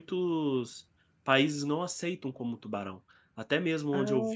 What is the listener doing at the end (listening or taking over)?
listening